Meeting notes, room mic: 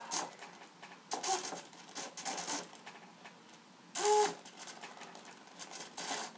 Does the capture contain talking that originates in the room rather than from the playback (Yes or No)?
No